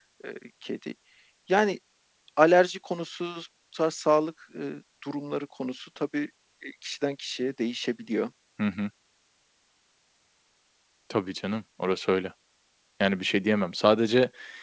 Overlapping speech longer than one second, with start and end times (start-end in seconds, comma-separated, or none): none